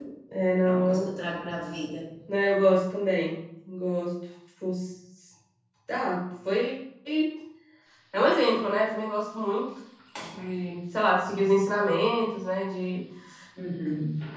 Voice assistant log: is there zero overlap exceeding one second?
Yes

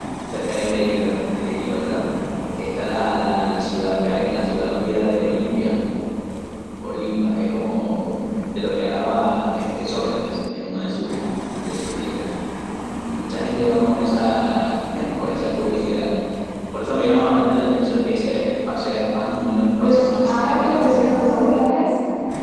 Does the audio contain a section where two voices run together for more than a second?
Yes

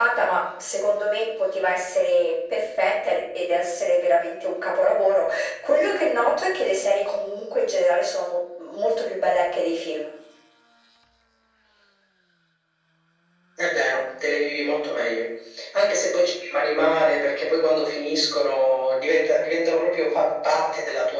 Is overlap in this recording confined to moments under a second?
Yes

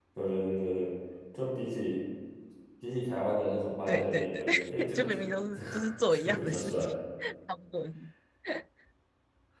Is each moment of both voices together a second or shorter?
No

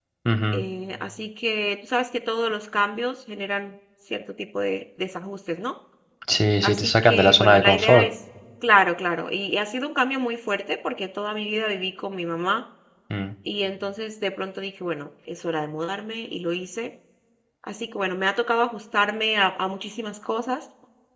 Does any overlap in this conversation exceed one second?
Yes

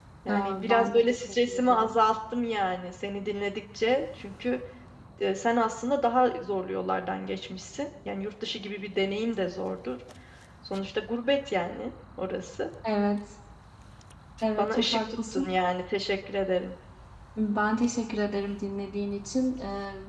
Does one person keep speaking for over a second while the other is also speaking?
Yes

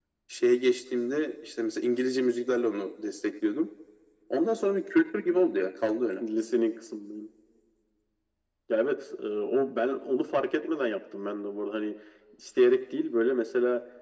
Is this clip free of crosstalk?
Yes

